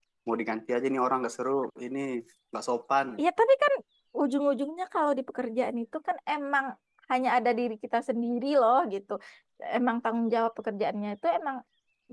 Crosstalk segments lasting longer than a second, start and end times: none

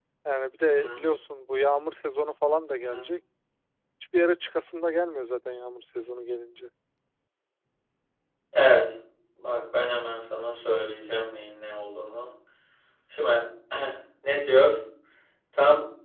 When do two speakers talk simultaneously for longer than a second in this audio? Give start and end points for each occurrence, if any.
none

